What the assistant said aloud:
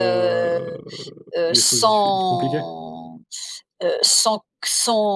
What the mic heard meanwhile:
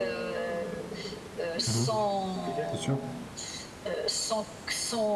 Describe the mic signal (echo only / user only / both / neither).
both